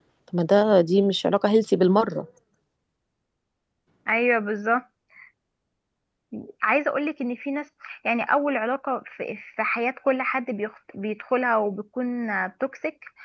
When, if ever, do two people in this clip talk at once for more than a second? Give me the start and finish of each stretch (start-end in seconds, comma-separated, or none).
none